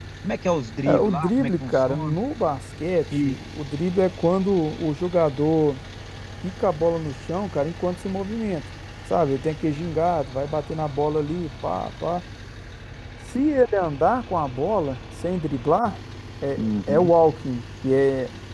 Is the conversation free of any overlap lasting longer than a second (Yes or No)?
No